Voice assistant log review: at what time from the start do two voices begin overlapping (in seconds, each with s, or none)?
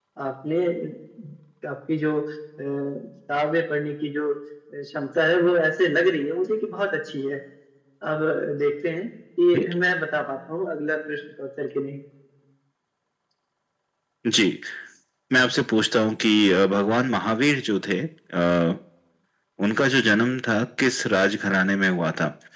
none